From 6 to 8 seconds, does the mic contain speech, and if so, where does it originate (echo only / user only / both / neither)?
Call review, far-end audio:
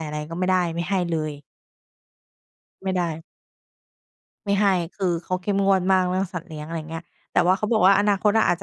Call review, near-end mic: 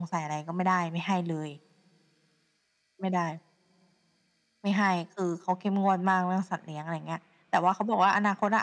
echo only